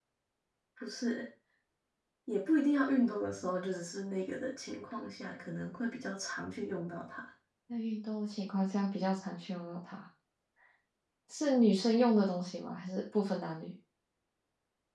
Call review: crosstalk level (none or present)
none